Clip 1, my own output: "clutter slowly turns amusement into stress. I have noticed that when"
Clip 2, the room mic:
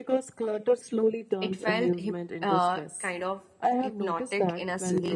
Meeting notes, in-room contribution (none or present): present